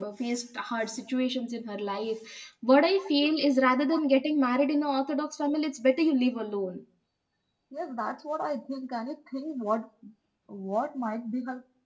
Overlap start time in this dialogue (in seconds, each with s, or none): none